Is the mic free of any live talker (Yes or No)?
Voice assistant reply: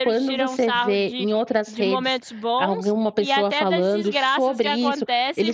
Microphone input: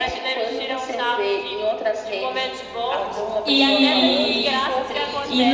No